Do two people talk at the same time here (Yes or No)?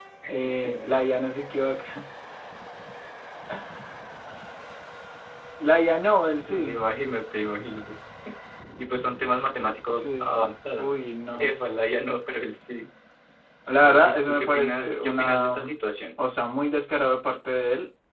Yes